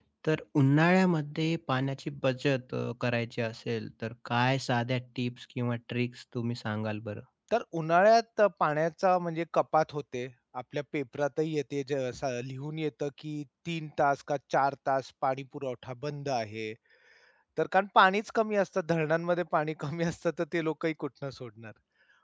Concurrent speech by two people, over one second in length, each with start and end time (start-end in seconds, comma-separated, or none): none